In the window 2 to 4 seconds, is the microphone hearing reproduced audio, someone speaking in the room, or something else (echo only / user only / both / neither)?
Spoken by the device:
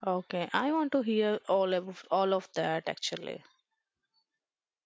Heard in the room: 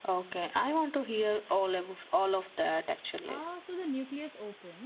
both